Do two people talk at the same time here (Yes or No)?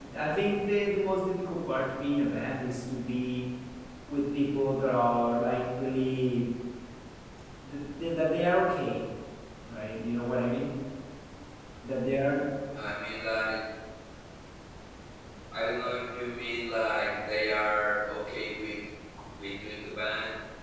No